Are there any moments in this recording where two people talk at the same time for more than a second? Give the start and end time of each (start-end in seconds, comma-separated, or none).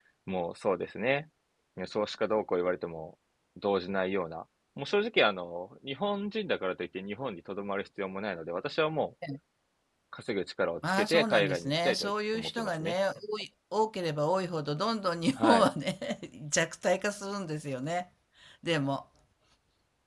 10.9-12.9